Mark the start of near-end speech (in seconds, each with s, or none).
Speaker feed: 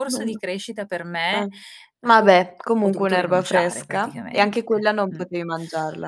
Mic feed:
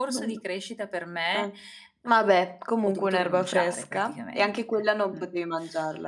none